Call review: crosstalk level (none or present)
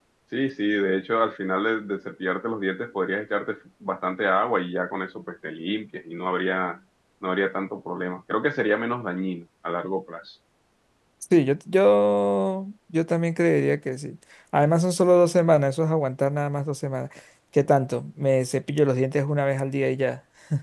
none